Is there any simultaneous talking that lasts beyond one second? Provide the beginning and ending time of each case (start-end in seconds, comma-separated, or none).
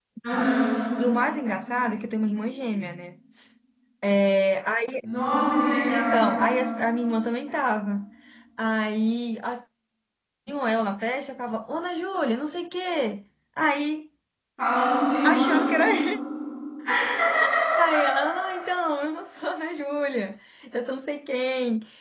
none